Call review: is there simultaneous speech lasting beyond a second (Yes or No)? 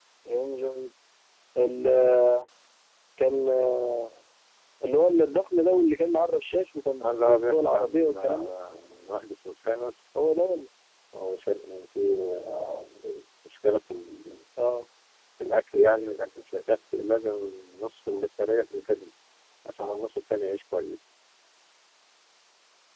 Yes